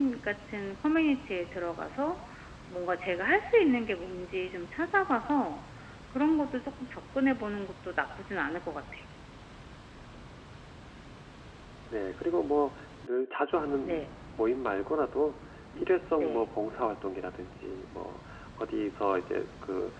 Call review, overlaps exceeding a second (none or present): none